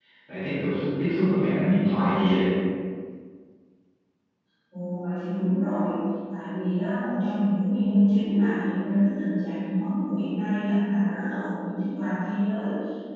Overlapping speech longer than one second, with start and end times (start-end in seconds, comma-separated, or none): none